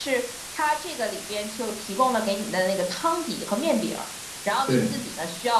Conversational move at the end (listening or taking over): listening